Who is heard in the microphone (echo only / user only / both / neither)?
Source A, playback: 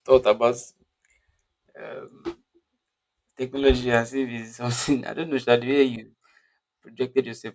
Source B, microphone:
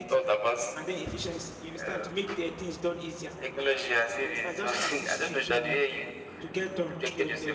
both